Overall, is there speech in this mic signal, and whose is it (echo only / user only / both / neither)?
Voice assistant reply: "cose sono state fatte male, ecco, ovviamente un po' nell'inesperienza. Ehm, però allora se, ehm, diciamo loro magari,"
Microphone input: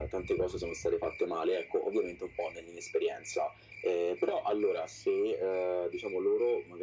echo only